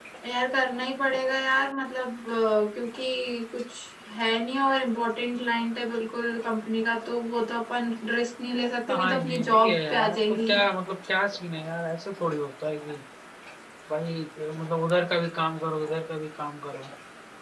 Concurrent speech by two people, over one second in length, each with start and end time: 8.9-10.5

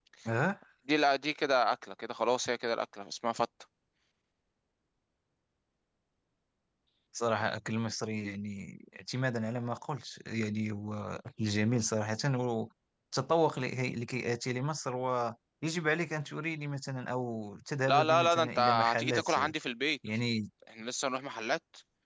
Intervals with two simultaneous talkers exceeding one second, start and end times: 17.9-19.3

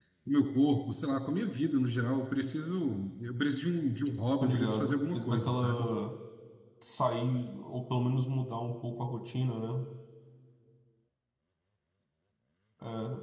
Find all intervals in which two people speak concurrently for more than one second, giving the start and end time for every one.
4.4-5.9

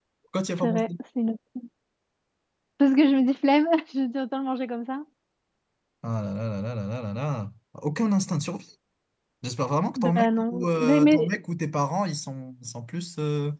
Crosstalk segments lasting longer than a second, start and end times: 10.0-11.3

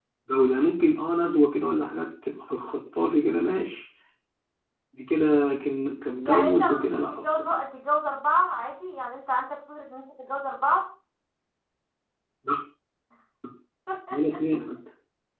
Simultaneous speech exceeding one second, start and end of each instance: 6.3-7.5

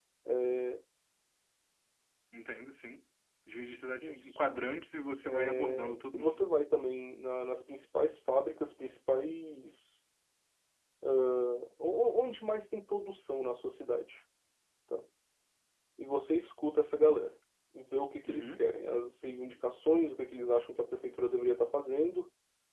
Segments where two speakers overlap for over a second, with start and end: 5.2-6.5

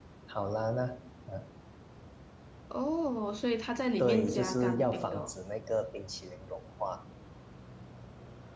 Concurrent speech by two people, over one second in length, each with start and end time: 4.0-5.3

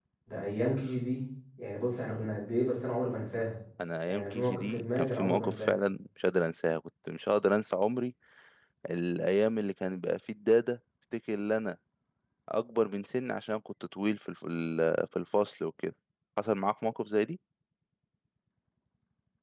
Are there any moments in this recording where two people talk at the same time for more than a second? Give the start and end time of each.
4.1-5.7

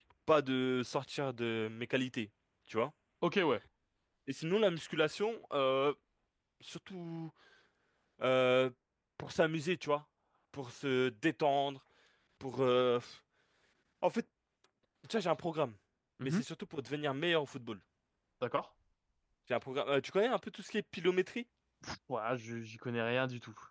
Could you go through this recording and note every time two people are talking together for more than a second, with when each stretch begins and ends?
none

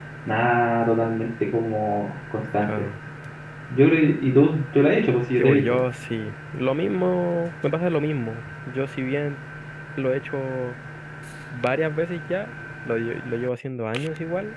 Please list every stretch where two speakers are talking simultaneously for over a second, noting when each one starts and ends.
none

